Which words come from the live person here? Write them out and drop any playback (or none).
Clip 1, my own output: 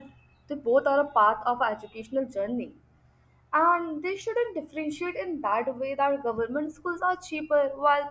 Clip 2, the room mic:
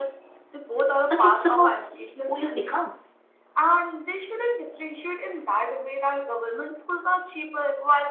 but it's about who you become.